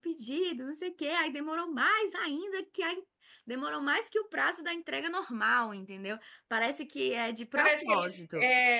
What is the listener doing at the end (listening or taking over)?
taking over